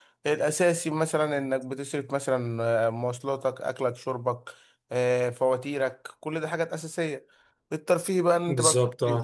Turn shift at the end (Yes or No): No